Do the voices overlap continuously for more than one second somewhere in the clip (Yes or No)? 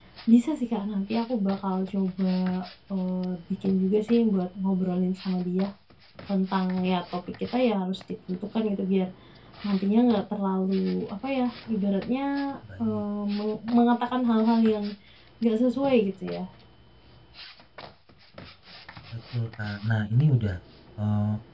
No